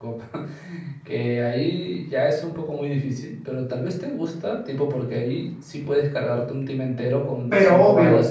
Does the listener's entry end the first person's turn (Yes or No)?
Yes